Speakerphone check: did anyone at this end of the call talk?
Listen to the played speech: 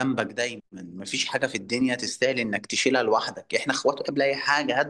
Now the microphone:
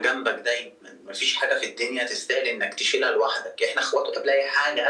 No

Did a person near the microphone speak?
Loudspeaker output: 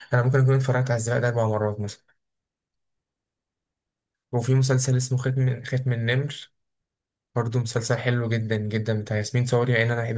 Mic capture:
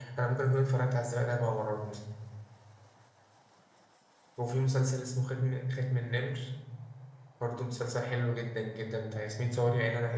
No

